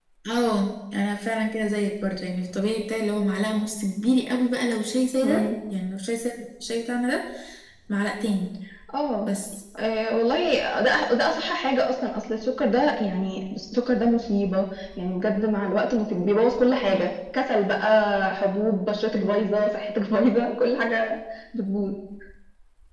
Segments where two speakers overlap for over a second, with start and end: none

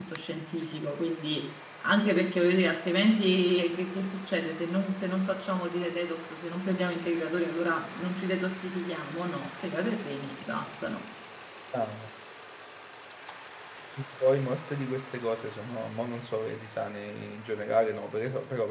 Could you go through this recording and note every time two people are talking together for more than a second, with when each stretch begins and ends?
none

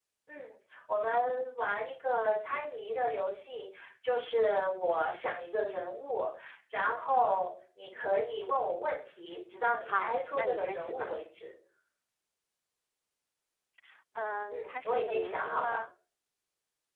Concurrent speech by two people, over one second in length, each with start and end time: 9.9-11.1, 14.5-15.8

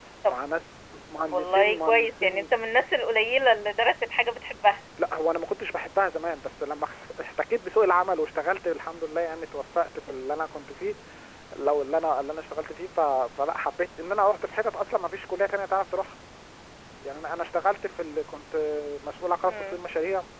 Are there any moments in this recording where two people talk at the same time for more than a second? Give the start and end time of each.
1.2-2.5

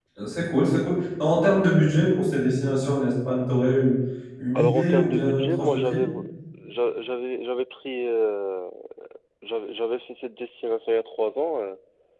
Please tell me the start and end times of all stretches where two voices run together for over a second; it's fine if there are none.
4.5-6.0

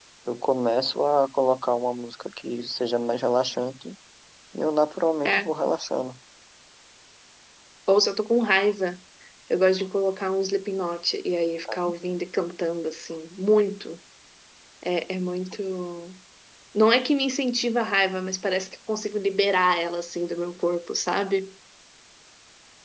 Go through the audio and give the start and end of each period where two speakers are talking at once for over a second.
none

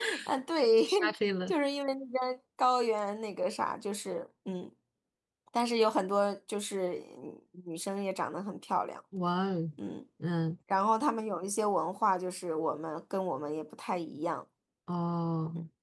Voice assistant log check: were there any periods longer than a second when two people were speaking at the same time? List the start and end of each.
none

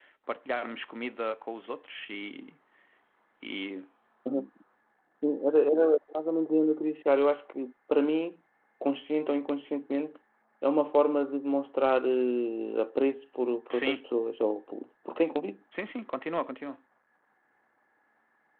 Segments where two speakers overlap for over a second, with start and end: none

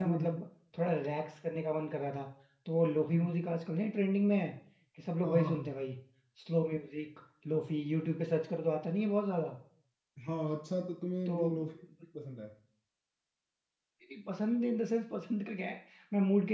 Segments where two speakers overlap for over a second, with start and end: none

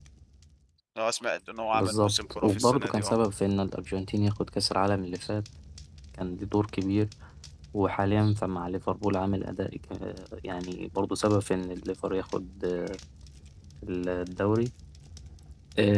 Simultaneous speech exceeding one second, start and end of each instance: 1.7-3.1

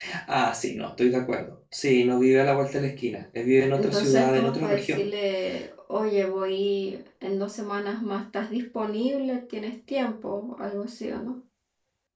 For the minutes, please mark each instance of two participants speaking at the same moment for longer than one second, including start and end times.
3.8-5.0

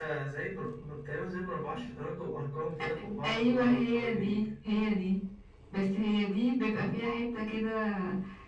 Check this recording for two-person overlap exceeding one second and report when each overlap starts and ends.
3.2-4.5

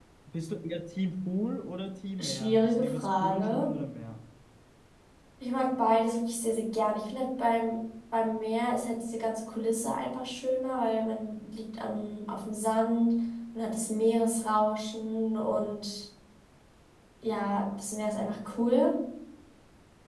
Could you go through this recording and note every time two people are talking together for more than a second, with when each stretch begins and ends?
2.2-3.7

